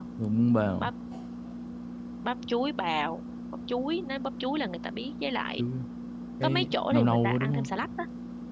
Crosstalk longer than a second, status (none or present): present